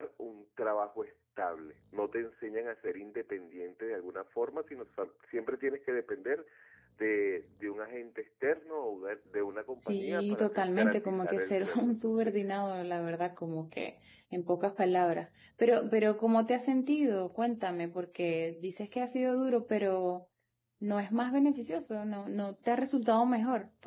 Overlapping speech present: Yes, from 9.8 s

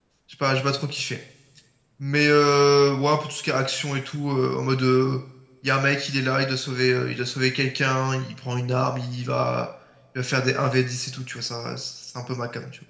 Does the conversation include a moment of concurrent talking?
No

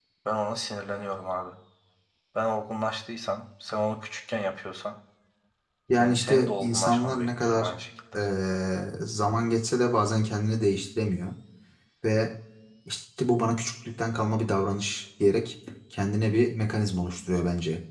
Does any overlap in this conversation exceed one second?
Yes, from 6.0 s

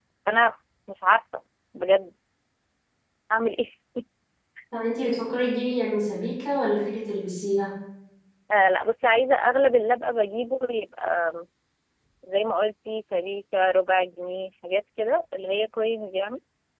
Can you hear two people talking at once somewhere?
No

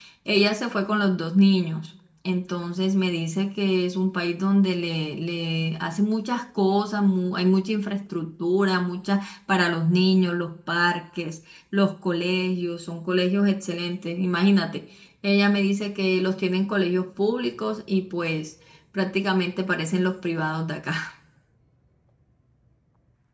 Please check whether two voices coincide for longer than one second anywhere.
No

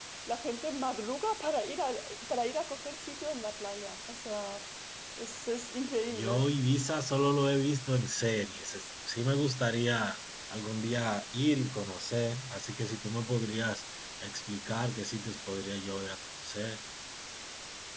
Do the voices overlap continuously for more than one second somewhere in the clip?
No

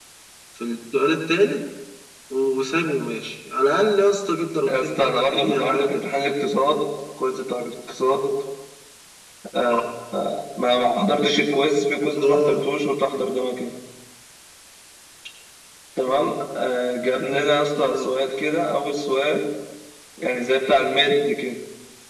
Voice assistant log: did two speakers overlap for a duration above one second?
Yes, from 4.7 s

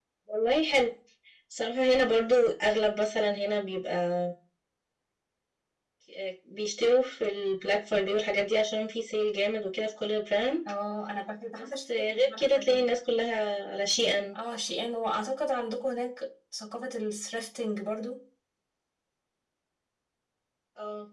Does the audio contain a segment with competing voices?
Yes, from 11.6 s

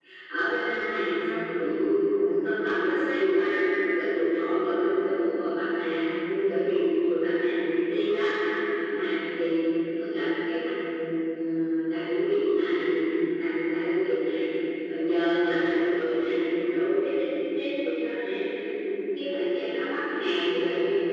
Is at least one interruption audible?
No

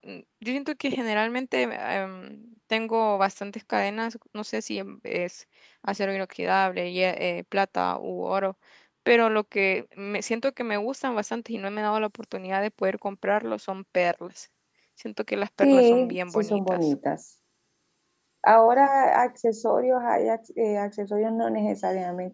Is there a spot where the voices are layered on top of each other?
Yes, from 15.6 s

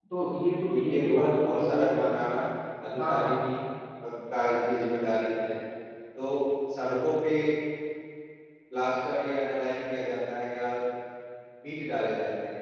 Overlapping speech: Yes, from 0.7 s

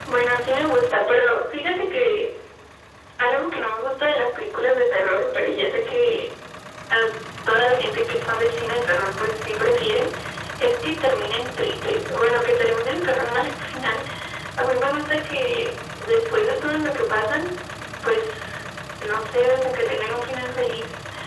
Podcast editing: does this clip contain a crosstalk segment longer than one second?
No

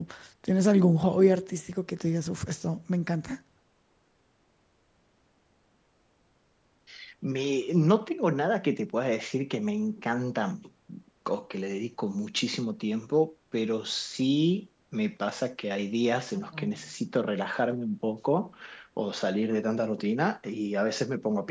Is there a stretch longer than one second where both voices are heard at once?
No

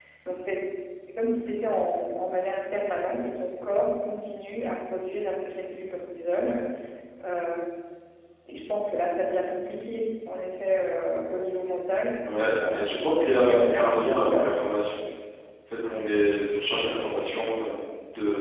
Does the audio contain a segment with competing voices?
Yes, from 12.7 s

